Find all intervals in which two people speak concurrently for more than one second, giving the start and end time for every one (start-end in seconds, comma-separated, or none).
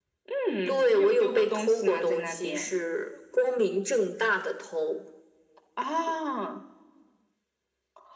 0.7-2.7